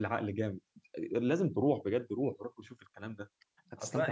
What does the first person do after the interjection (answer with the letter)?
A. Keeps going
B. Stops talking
B